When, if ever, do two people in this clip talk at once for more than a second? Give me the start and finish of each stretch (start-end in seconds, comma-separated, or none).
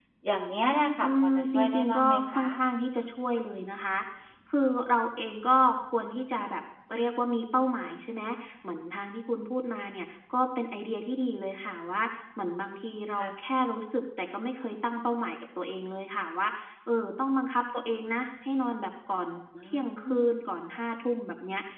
1.0-2.6